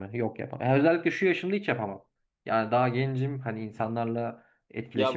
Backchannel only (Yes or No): No